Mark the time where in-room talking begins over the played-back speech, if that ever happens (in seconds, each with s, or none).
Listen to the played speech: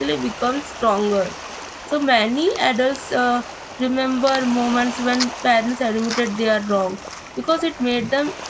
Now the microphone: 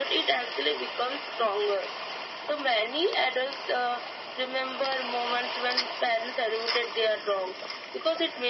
none